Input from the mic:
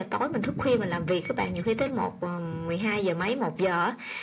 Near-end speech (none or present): none